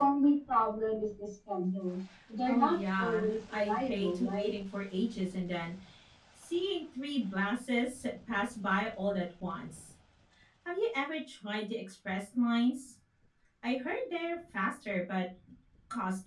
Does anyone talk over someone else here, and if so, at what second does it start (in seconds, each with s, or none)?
2.5 s